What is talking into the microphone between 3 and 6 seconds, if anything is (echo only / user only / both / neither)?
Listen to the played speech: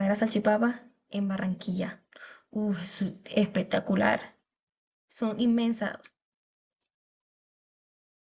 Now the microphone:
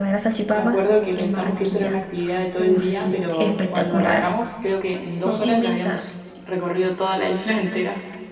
both